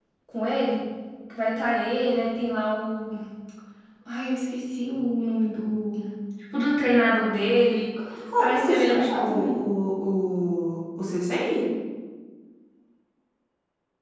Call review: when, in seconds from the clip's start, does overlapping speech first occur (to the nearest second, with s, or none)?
8 s